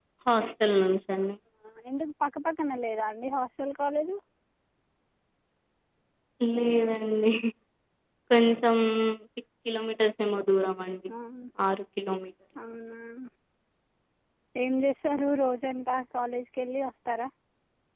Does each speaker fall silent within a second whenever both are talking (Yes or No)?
Yes